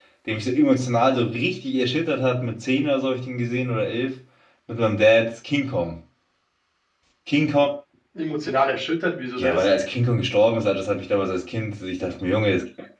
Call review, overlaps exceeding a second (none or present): none